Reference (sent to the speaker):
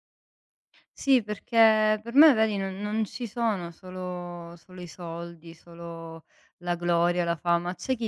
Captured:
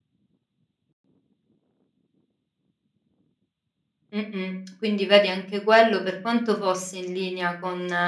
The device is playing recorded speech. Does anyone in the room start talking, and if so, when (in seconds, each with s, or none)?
4.1 s